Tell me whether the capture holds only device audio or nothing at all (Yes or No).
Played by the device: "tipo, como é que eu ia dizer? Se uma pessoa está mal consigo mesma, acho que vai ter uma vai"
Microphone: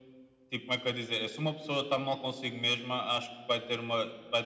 Yes